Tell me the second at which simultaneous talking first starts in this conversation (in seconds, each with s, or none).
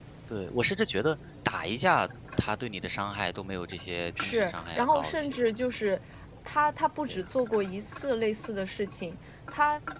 4.2 s